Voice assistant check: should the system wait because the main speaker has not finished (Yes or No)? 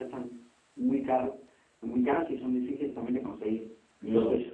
No